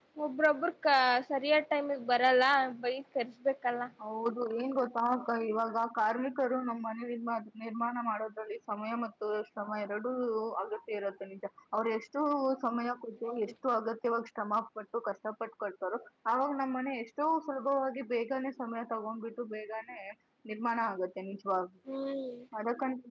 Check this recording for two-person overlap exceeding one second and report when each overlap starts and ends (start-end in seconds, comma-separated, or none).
none